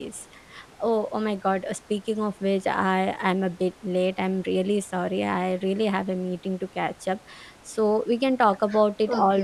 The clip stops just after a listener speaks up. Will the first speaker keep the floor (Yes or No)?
No